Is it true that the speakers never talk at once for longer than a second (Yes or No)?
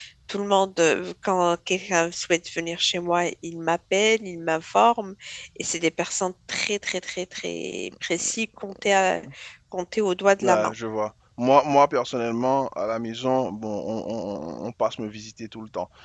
Yes